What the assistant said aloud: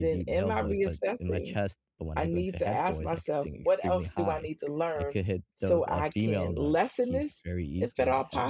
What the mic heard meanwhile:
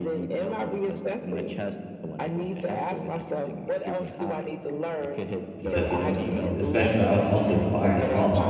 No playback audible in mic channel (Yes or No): No